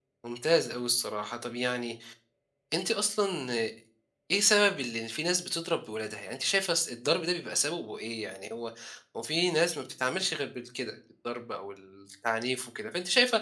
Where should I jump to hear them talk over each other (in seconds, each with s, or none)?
none